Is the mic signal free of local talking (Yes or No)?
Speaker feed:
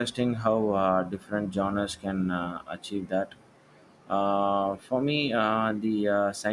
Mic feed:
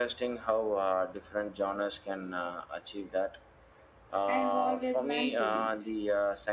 No